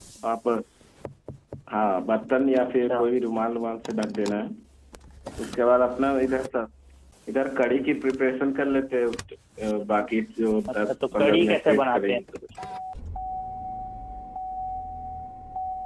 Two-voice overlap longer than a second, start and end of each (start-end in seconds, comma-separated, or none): 10.7-12.2